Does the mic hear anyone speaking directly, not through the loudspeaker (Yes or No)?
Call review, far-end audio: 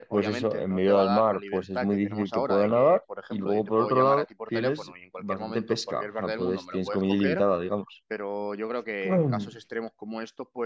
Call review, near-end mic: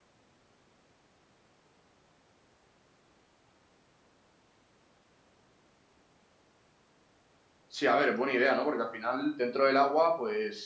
Yes